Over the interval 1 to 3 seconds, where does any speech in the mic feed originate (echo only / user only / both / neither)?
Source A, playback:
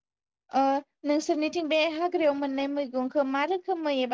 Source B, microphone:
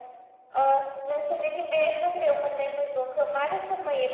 echo only